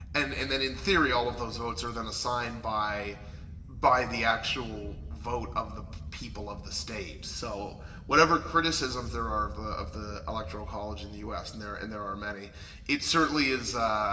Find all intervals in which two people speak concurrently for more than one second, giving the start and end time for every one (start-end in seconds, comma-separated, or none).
none